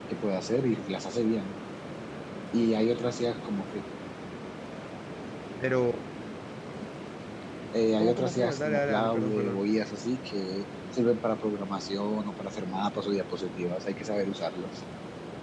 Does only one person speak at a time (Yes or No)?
No